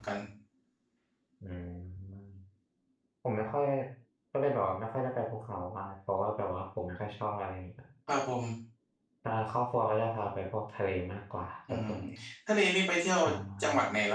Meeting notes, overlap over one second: none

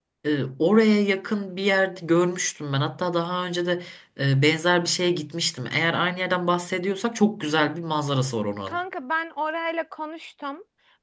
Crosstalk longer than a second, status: none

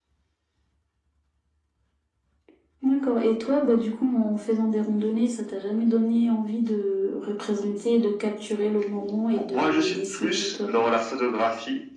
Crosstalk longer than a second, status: present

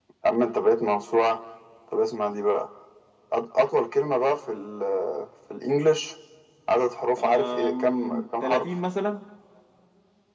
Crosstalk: present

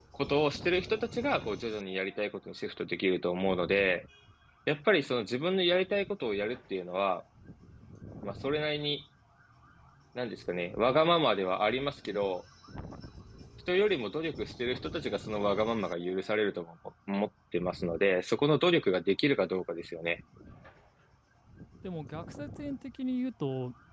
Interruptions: none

